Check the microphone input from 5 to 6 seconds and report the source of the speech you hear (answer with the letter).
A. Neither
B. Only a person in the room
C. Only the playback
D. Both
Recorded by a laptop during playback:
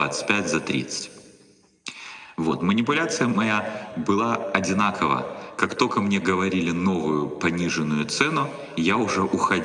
C